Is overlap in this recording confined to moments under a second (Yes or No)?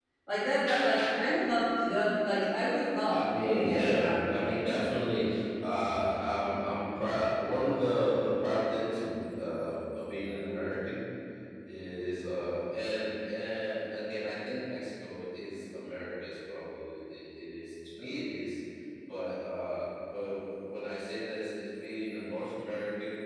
No